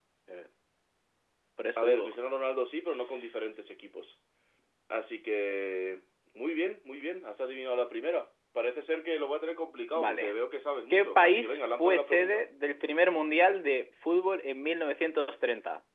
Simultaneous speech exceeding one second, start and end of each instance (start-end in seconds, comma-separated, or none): 10.9-12.4